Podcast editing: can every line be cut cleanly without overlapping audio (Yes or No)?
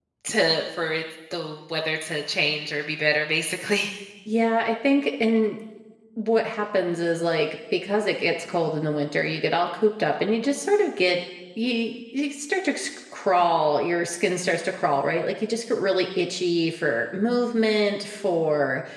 Yes